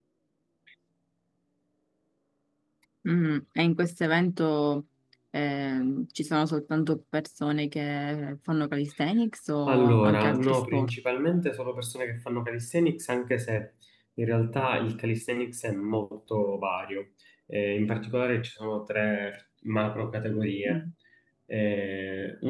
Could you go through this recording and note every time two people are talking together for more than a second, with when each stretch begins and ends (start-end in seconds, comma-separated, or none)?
9.7-10.9